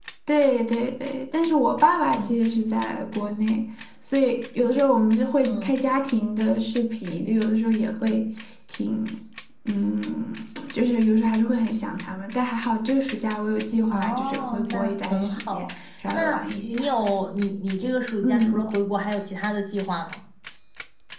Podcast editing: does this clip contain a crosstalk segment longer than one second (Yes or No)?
Yes